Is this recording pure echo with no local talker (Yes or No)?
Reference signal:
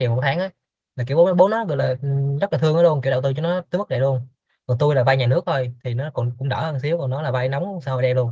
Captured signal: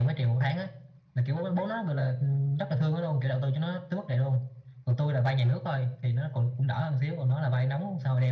Yes